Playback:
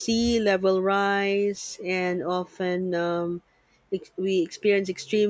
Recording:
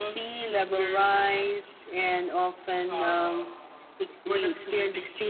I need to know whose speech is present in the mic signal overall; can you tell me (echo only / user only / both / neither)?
both